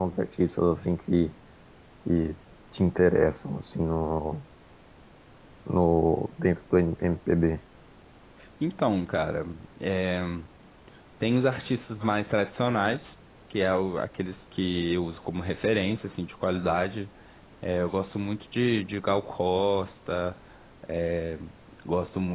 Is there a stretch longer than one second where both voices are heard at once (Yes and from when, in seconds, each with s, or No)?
No